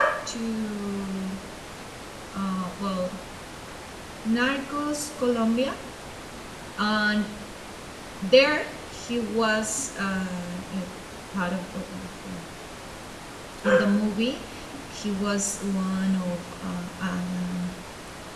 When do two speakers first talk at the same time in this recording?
none

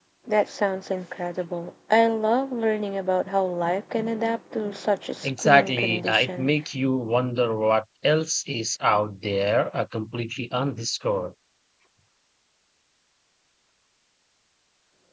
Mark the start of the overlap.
5.2 s

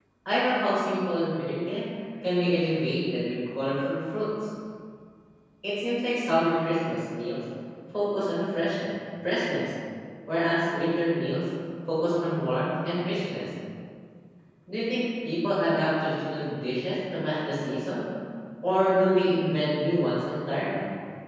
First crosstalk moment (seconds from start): none

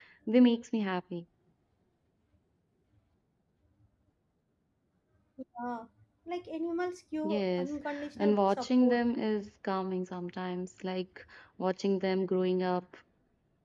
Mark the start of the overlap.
7.2 s

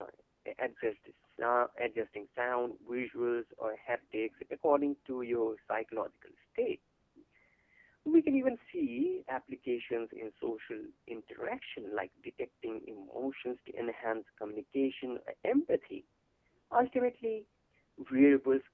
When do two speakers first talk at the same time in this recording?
none

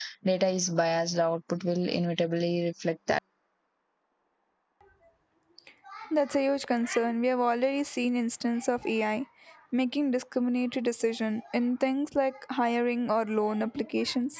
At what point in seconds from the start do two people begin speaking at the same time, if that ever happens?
none

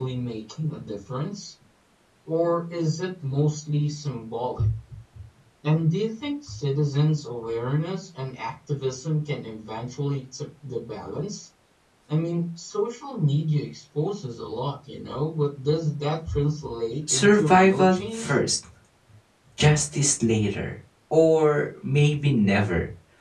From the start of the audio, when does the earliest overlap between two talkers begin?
17.1 s

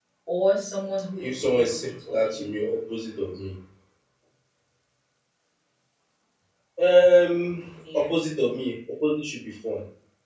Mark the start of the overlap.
1.2 s

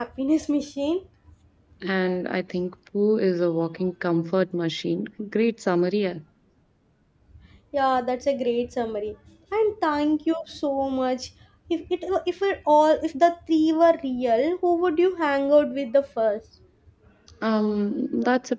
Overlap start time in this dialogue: none

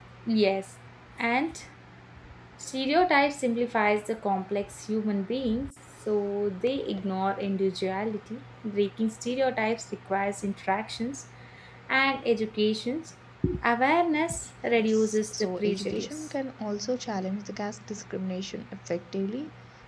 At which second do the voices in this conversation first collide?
14.7 s

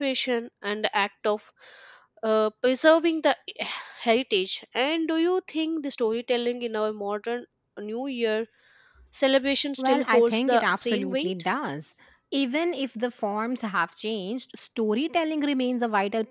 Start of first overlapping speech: 9.8 s

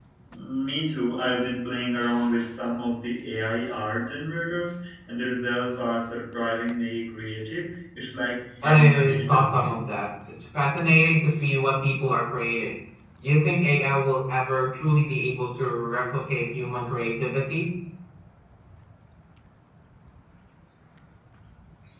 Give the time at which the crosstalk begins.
8.6 s

